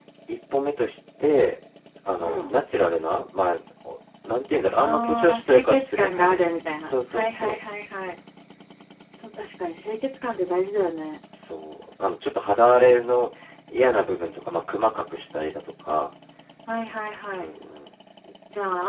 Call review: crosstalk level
present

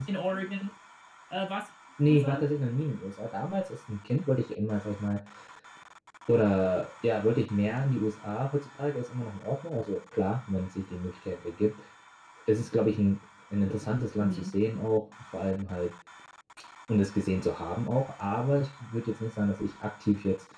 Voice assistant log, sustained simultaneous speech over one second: none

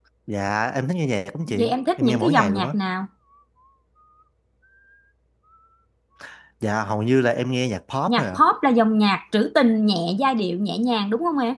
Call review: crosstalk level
present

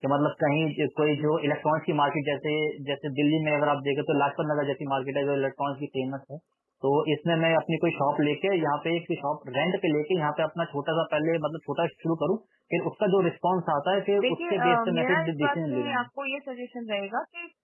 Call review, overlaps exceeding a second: present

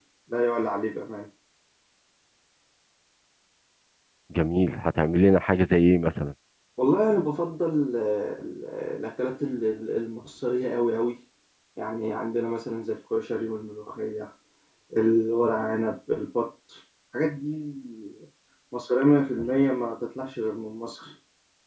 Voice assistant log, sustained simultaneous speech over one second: none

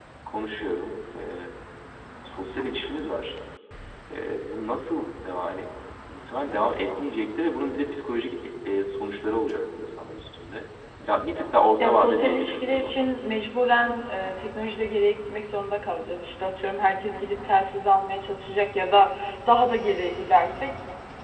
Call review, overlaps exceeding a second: present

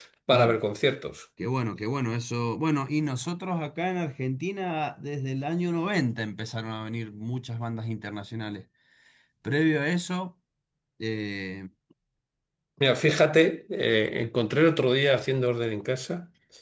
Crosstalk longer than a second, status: none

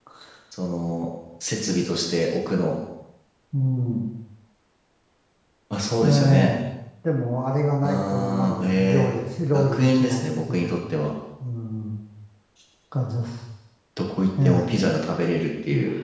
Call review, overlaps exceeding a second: present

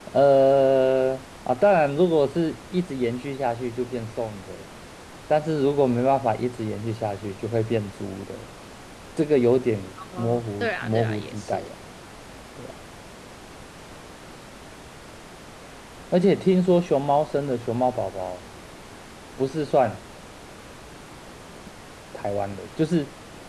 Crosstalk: present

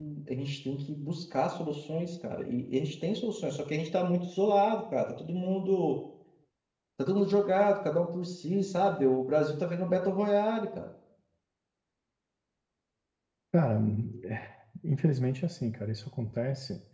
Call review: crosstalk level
none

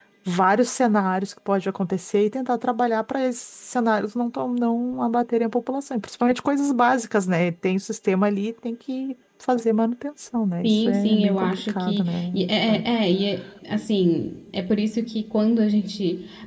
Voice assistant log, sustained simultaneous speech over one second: present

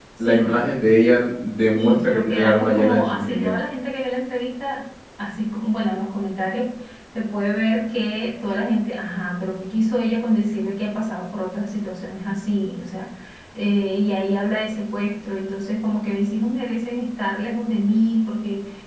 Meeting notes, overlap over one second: present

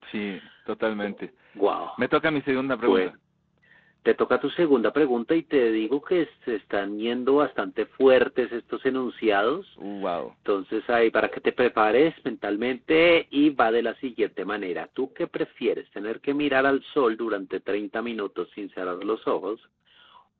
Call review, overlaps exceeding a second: none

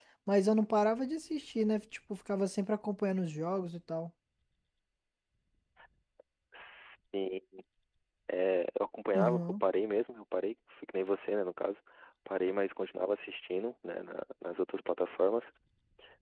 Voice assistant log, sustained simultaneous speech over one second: none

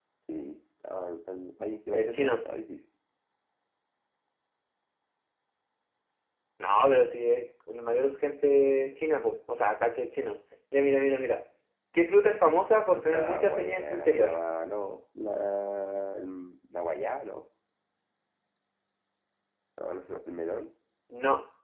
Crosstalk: present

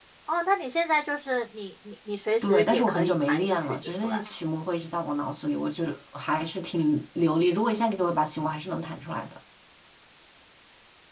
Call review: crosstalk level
present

